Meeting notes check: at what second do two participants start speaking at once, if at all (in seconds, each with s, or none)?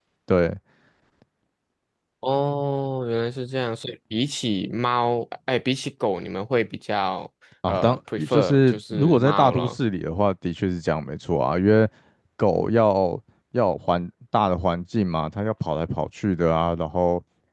7.6 s